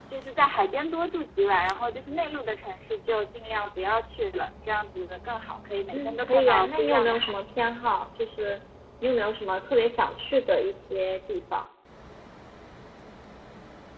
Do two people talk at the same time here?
Yes, from 5.9 s

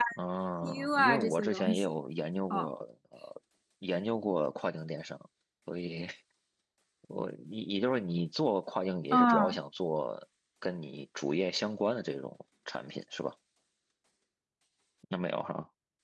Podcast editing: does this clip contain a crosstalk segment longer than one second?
Yes, from 0.6 s

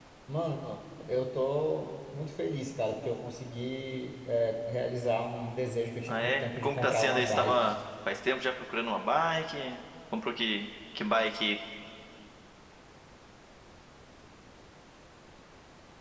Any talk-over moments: Yes, from 6.1 s

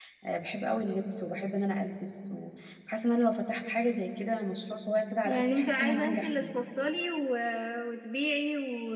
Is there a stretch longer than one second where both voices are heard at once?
Yes, from 5.2 s

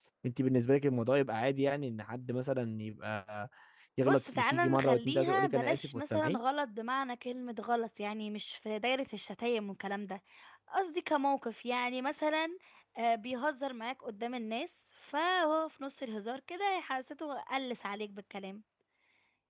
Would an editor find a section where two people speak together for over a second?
Yes, from 4.0 s

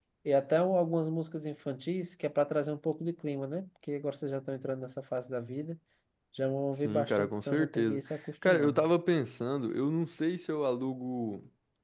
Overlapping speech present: Yes, from 6.8 s

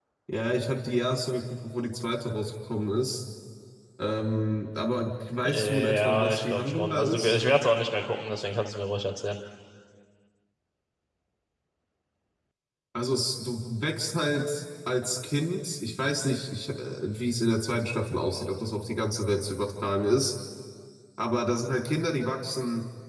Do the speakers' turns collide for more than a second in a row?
Yes, from 5.4 s

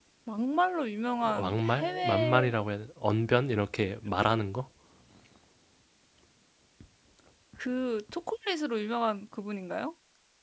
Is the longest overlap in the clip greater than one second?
Yes, from 1.2 s

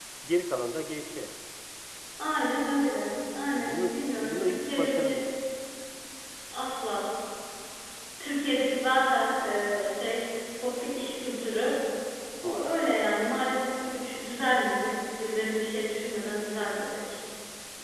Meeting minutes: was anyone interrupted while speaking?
Yes, from 3.6 s

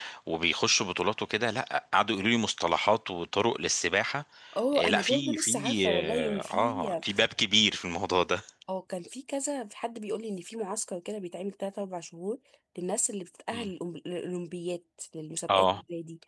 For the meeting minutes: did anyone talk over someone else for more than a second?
Yes, from 4.8 s

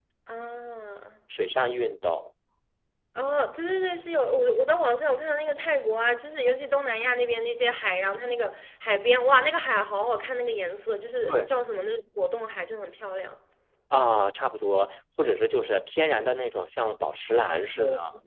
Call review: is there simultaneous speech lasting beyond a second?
No

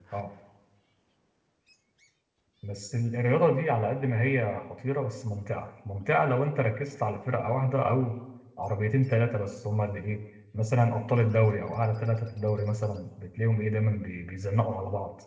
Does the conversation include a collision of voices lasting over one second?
No

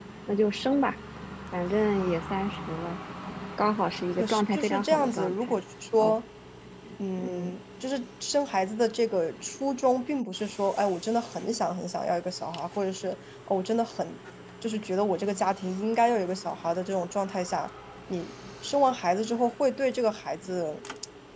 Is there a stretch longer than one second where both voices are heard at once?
Yes, from 4.2 s

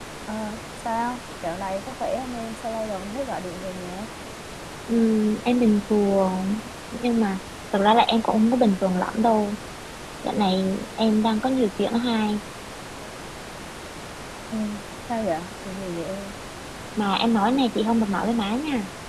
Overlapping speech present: No

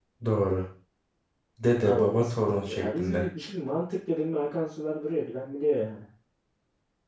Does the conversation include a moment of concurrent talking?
Yes, from 1.8 s

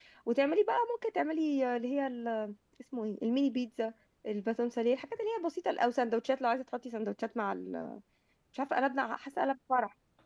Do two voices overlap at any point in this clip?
No

